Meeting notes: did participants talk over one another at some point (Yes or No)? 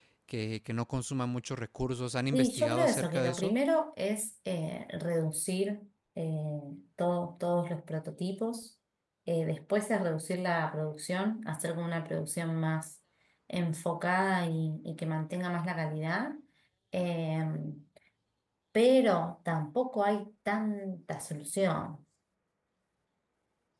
Yes